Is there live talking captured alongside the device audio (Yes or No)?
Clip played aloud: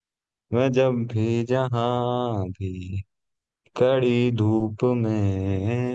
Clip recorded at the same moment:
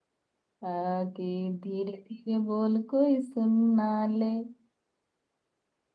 Yes